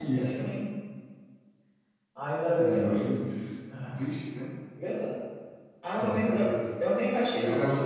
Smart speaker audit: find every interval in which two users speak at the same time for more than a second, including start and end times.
none

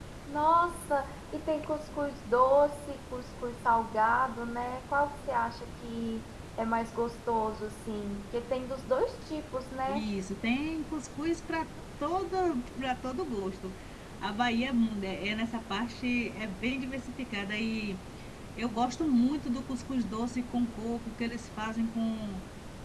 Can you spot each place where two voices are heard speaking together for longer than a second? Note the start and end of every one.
none

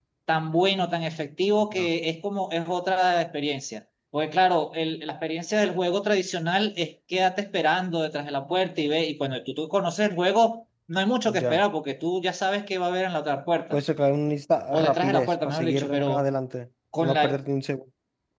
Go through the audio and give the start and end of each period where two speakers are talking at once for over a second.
14.7-16.3

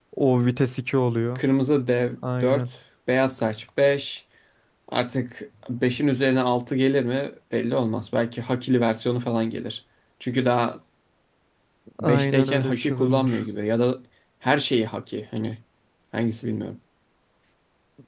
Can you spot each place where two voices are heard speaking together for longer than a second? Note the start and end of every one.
12.0-13.4

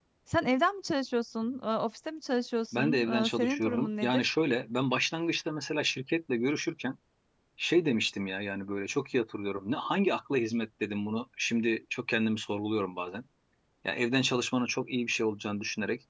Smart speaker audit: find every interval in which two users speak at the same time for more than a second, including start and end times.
2.7-4.3

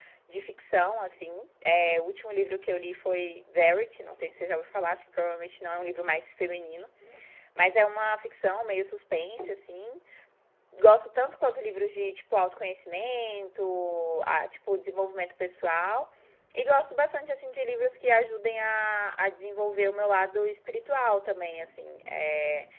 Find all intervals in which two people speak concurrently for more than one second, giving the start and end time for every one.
none

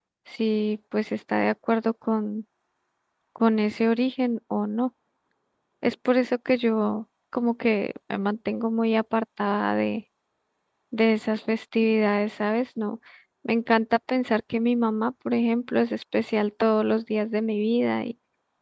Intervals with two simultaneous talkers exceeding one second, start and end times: none

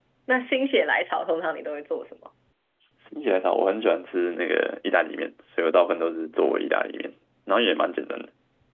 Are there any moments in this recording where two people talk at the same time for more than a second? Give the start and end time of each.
none

